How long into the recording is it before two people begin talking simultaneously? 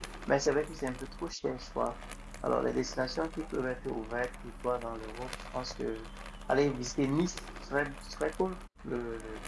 none

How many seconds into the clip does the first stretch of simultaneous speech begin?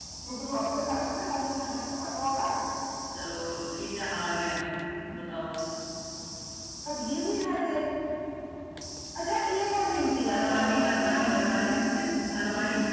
10.3 s

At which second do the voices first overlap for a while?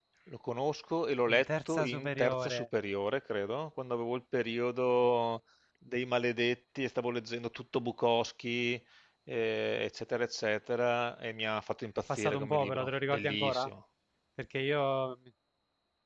1.3 s

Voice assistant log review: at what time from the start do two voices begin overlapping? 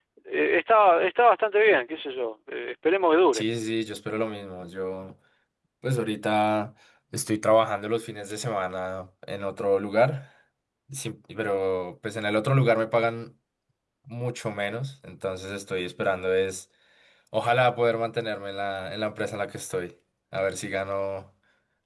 none

